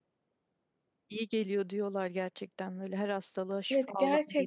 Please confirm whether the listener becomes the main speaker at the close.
Yes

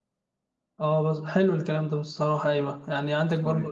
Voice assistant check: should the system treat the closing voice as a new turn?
No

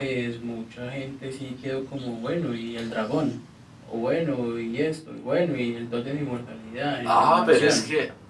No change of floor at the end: No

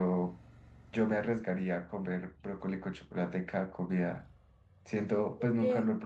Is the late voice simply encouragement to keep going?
Yes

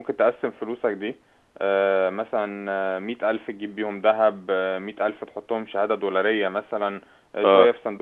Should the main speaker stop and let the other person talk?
No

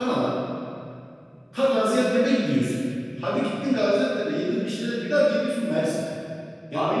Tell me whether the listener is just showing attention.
No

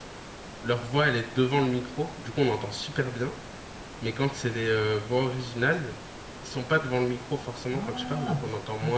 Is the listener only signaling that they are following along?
No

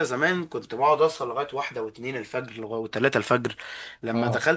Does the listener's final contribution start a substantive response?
No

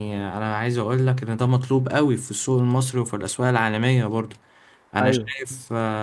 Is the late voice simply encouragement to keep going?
Yes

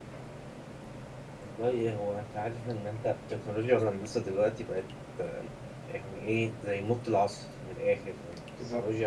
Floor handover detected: No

